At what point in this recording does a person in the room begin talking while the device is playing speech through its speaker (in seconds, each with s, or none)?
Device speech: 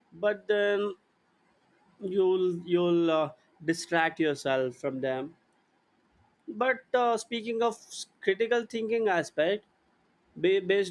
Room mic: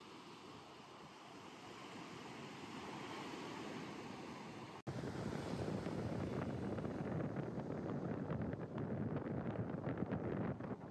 none